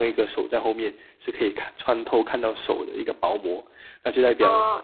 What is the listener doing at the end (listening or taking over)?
taking over